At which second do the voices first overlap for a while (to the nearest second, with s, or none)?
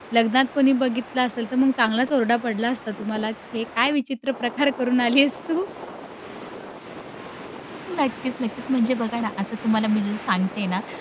none